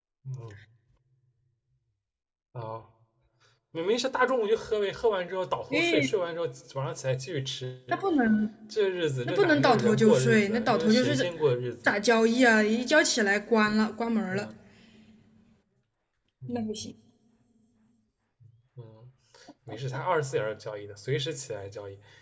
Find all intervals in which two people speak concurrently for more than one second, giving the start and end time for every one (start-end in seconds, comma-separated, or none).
9.2-11.3